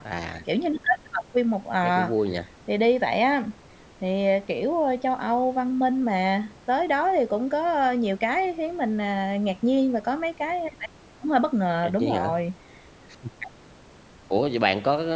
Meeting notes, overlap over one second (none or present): none